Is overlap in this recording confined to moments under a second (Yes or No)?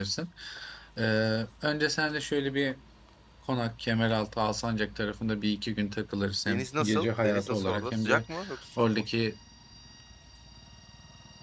No